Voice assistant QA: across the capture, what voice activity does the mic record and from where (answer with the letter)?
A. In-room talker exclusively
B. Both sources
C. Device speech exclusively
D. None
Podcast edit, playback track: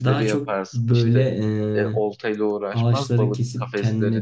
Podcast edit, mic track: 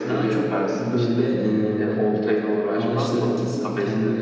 C